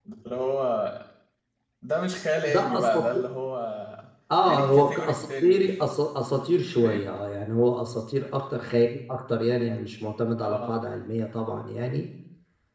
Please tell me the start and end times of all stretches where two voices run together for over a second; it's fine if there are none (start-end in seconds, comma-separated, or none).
4.4-5.7